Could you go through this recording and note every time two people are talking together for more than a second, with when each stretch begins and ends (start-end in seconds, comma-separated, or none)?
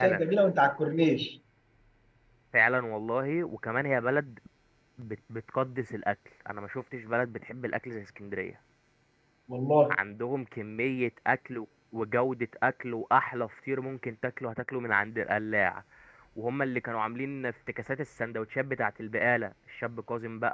none